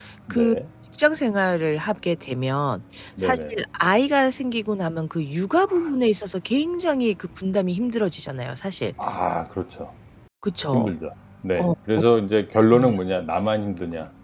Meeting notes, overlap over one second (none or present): none